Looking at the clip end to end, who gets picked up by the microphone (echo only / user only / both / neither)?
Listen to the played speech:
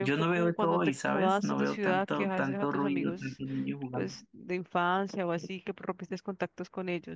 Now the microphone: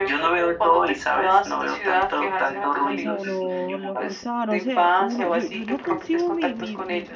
both